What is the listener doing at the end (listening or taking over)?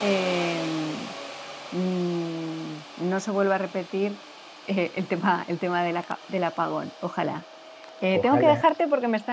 listening